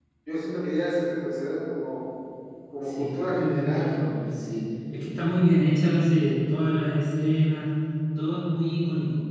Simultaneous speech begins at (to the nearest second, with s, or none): 3 s